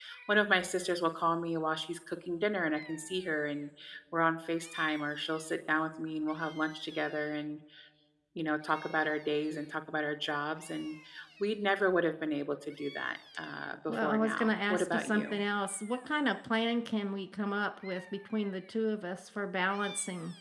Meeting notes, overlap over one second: present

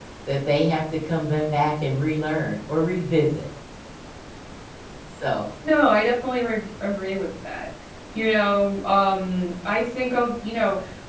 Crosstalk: none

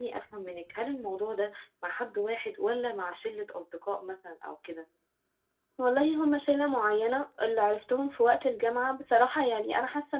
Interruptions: none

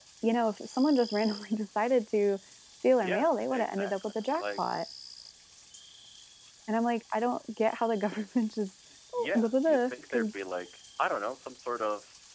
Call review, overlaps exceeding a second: present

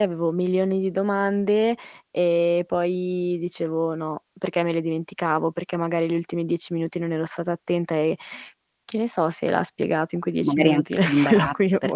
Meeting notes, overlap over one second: present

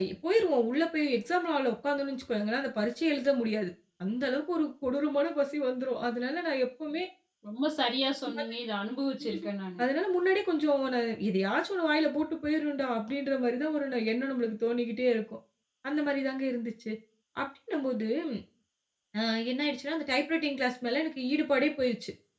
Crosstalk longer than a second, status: none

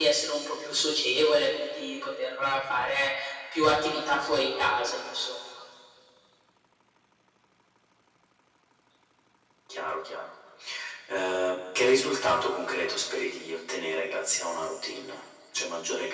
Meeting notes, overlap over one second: none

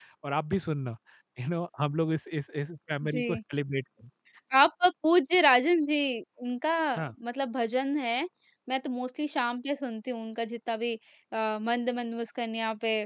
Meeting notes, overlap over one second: none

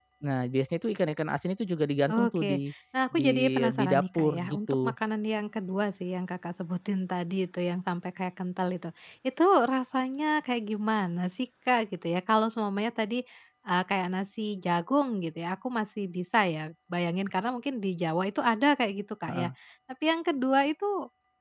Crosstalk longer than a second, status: present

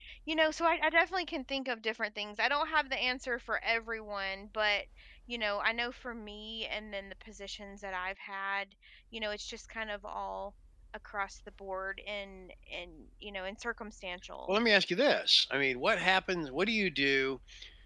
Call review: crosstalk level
none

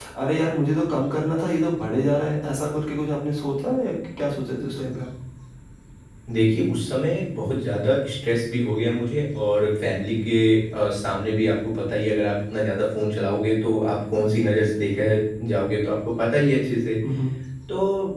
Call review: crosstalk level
none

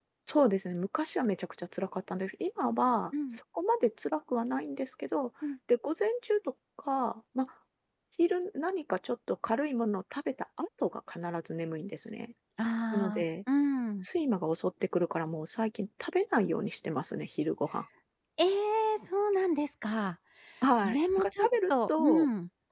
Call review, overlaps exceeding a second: present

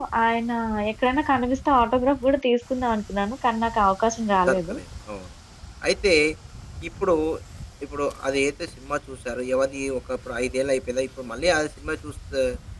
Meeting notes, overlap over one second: none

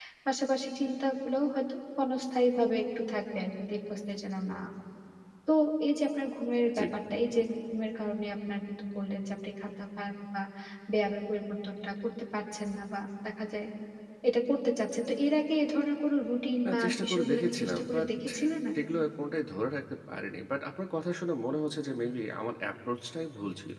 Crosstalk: present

